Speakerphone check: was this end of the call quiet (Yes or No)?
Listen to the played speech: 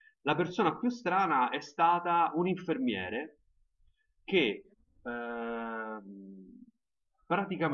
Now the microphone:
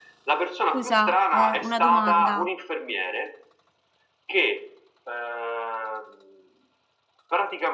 No